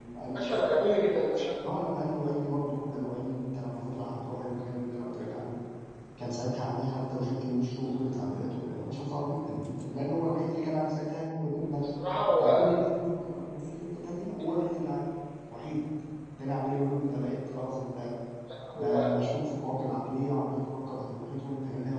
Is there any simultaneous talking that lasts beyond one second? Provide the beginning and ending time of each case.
none

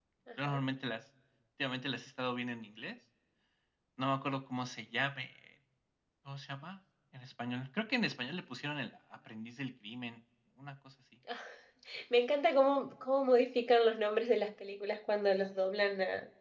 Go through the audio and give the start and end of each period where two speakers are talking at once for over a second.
none

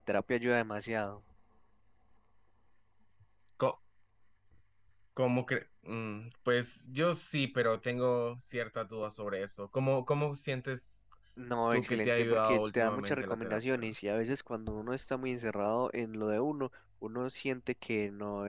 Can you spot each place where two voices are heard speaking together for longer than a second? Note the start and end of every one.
11.7-13.8

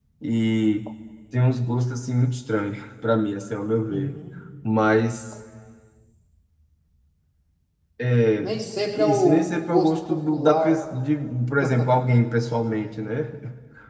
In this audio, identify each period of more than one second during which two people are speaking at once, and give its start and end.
9.0-10.8

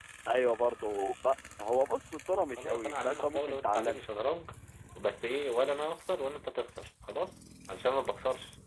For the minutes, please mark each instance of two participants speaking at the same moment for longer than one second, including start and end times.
2.6-4.0

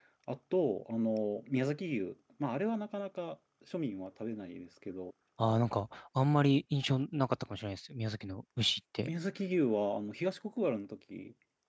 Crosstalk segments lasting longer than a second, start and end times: none

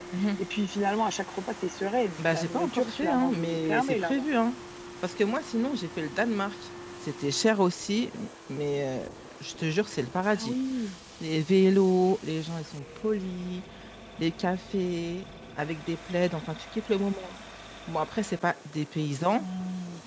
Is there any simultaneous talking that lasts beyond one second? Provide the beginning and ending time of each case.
2.2-4.2

